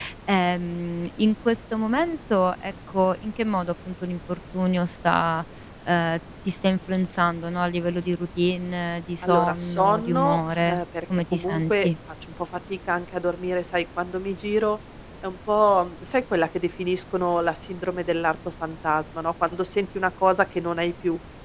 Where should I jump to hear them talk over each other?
9.2 s

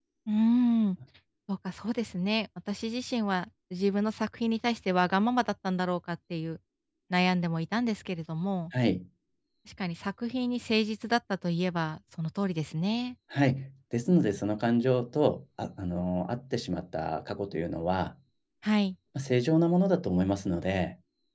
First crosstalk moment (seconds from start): none

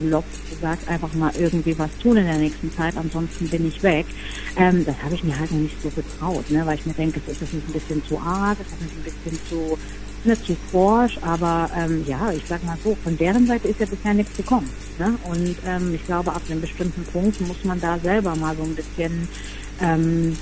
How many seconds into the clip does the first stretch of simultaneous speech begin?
none

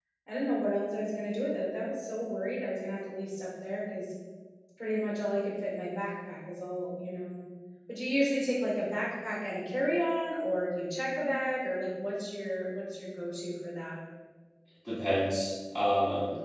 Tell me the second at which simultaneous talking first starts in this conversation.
none

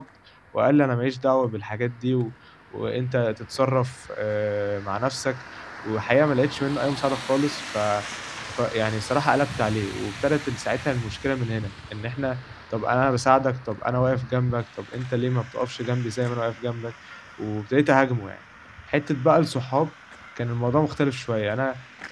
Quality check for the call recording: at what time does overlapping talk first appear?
none

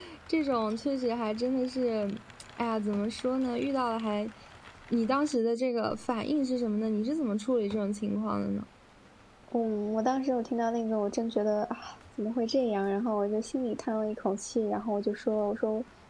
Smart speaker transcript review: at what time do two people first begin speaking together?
none

